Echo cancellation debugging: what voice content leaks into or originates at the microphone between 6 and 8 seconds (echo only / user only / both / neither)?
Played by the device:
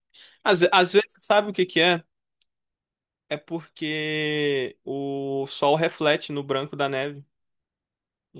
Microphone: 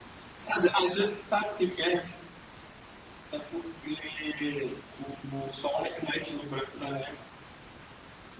echo only